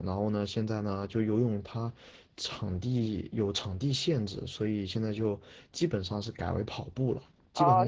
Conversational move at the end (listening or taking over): taking over